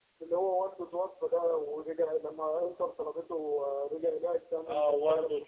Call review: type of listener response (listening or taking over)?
taking over